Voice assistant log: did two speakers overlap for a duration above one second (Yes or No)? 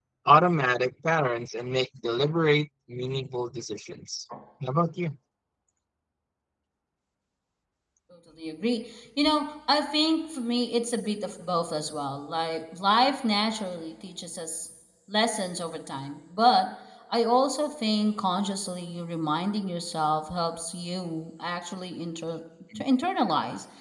No